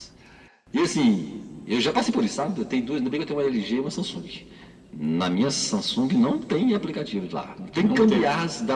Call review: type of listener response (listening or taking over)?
listening